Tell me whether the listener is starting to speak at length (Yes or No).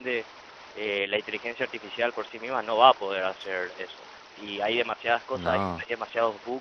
No